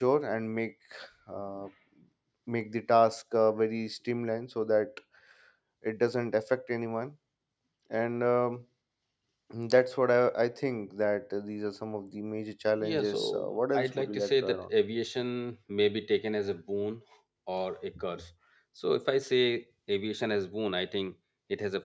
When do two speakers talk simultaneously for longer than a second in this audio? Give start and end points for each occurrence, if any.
12.8-14.7

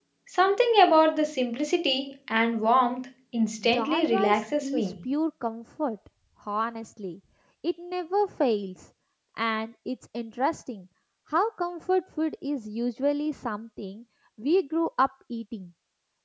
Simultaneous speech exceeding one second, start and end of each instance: 3.7-4.9

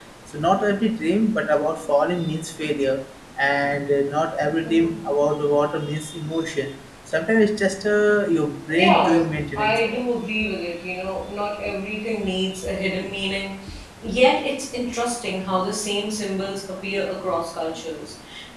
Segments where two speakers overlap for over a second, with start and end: 8.7-10.0

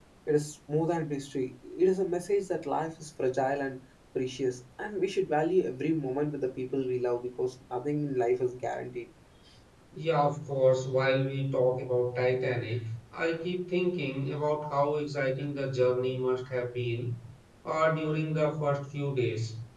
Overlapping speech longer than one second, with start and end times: none

